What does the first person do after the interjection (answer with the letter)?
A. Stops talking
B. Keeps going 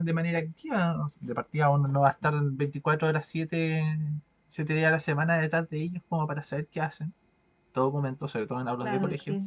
A